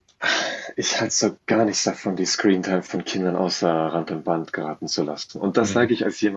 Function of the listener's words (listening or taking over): listening